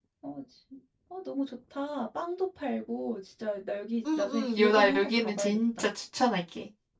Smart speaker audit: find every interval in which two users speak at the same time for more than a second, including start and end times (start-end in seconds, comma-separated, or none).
4.2-5.9